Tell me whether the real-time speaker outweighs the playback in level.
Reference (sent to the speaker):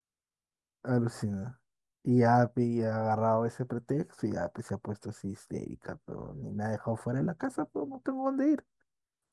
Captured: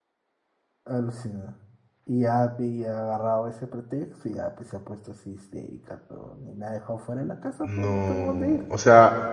Yes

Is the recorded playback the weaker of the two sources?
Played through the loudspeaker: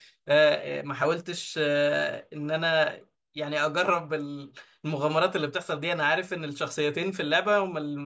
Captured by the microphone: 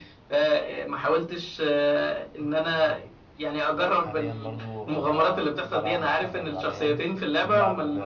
No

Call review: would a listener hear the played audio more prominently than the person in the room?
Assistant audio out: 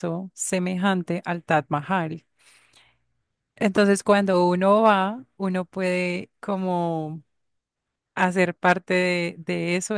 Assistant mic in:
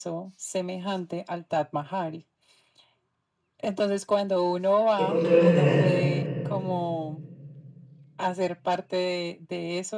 No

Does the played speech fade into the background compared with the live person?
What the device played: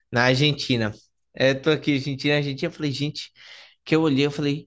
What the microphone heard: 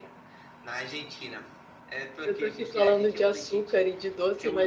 Yes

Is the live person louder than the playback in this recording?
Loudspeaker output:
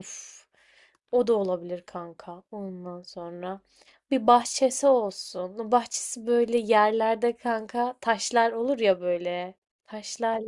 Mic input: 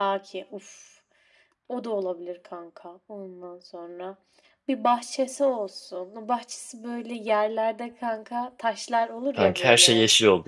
Yes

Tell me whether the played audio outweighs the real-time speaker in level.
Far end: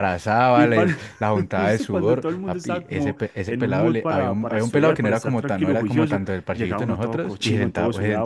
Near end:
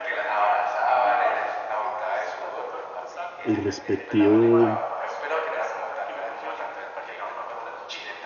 No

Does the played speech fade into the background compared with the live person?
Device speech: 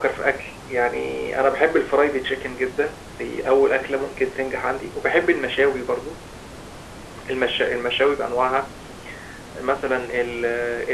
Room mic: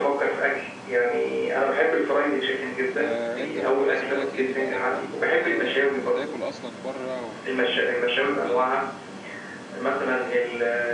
No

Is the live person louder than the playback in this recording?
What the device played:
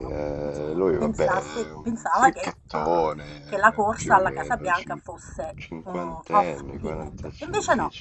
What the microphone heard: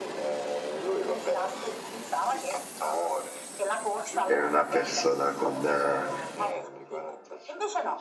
Yes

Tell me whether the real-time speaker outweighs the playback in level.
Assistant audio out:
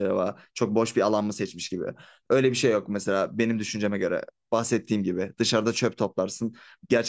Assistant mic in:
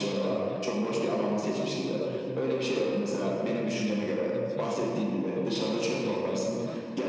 No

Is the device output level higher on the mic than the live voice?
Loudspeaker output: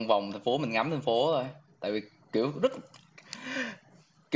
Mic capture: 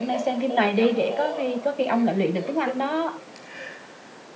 No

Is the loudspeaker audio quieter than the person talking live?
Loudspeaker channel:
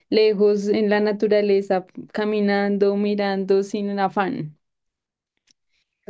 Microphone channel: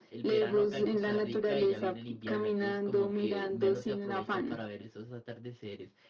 No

